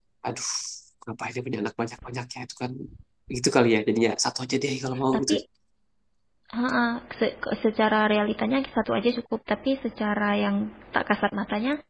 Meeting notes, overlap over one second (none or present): none